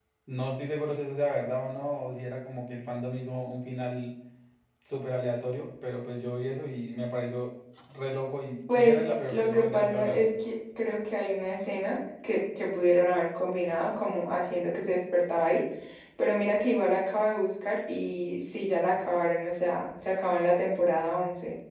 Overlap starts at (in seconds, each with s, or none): 8.7 s